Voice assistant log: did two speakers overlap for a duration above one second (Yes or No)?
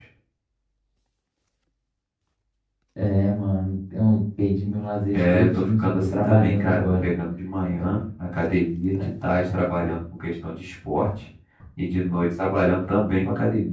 Yes